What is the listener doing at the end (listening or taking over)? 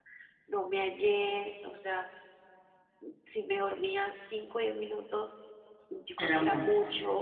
listening